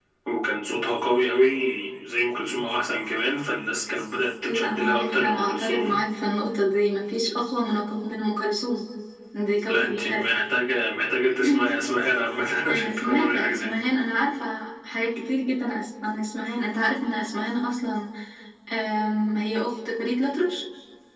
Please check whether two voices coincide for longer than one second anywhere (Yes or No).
Yes